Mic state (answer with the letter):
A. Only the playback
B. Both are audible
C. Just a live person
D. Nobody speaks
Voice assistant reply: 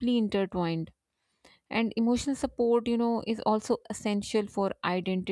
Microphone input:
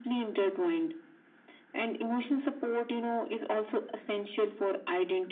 A